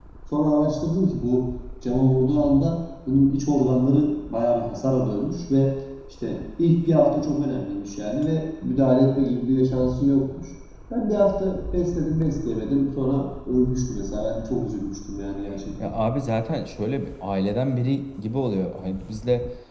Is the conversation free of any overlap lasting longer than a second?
Yes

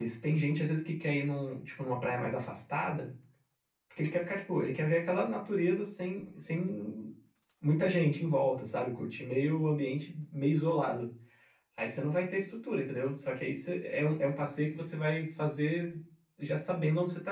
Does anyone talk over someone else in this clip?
No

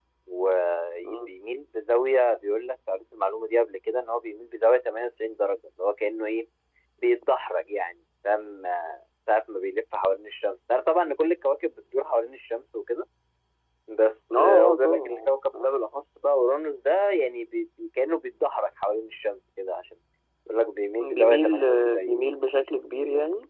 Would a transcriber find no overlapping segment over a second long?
No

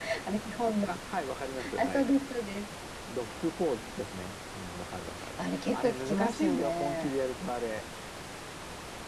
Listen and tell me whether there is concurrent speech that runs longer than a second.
Yes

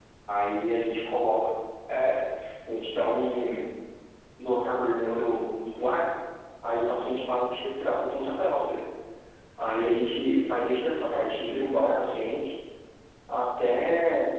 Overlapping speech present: Yes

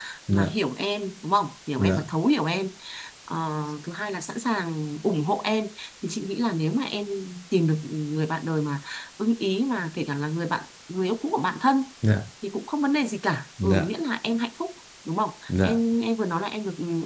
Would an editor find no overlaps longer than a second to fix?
Yes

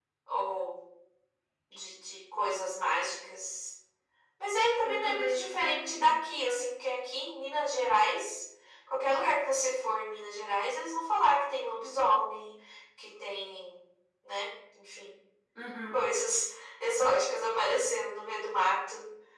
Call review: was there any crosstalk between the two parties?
Yes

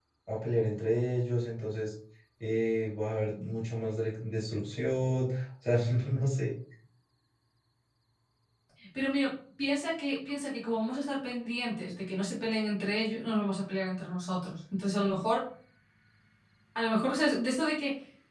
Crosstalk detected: No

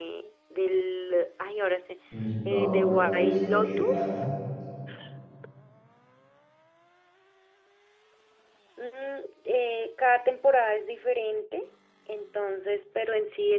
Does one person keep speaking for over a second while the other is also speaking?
Yes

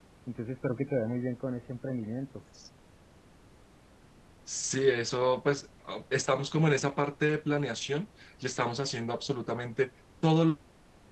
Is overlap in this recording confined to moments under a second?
Yes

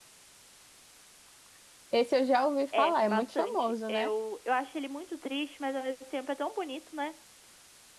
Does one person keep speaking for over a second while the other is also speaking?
Yes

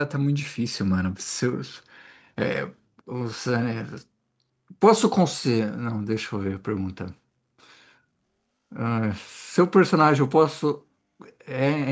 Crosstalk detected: No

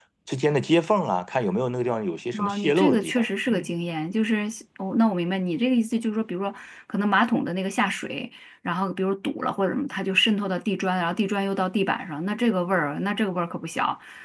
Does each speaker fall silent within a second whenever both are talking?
No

